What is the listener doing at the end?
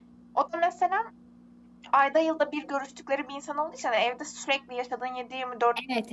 taking over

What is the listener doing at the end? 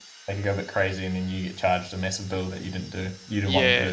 taking over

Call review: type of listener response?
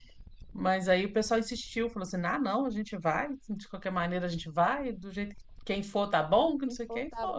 taking over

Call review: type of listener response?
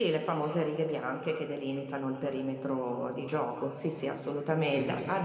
listening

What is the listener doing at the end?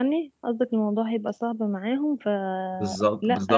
taking over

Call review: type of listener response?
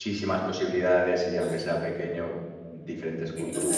taking over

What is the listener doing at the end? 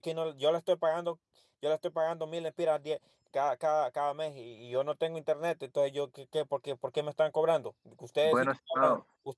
listening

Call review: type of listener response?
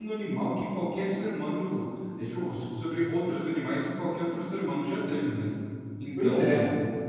listening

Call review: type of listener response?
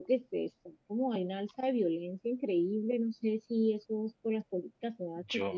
listening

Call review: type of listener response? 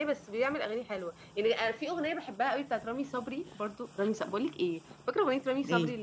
listening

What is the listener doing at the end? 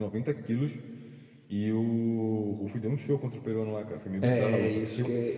taking over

